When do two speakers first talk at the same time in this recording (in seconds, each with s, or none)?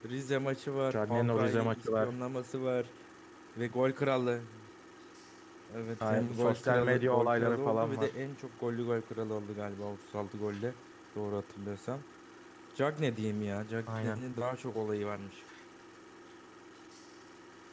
0.9 s